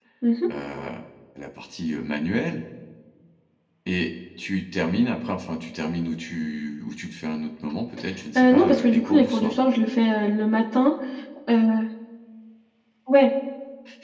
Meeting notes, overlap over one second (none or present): present